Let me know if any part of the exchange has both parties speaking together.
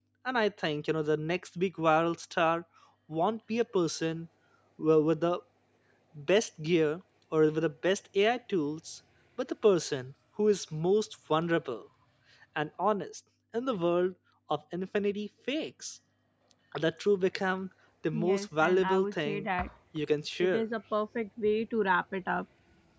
Yes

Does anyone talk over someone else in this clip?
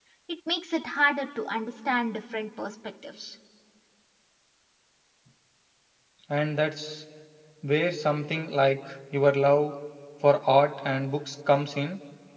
No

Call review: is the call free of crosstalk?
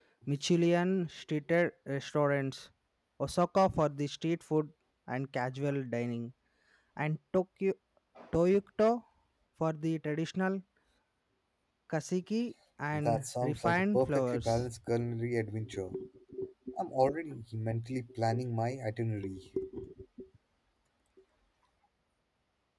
No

